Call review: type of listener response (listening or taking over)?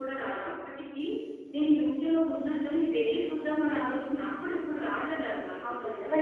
taking over